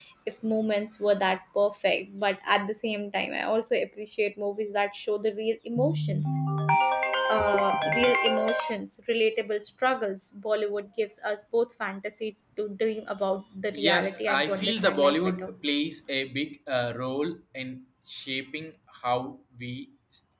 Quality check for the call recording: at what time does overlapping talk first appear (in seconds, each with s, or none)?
13.7 s